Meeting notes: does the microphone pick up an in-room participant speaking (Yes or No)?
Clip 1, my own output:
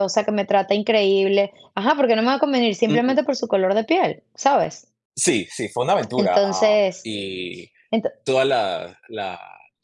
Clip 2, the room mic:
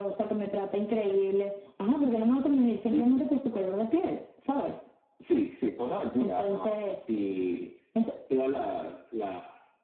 No